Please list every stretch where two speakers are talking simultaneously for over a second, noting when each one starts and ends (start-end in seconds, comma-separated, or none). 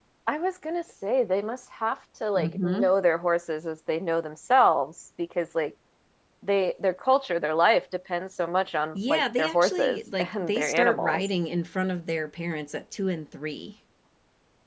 8.9-11.3